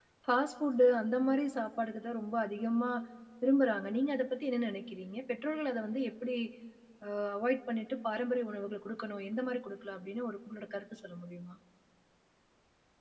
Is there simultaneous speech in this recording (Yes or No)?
No